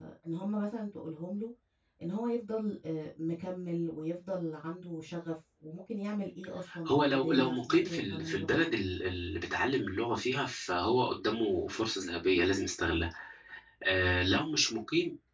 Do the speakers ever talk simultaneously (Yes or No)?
Yes